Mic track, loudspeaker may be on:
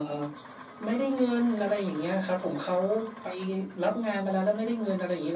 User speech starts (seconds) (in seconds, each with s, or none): none